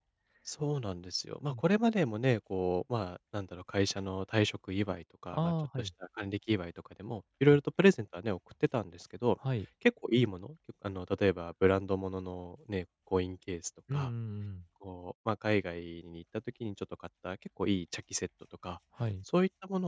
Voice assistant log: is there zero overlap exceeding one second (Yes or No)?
Yes